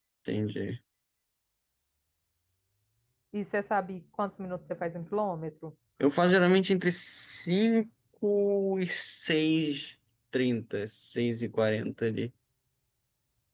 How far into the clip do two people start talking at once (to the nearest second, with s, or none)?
none